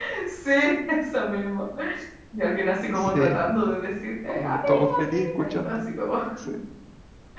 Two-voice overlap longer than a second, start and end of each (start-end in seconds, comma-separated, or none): 4.3-5.8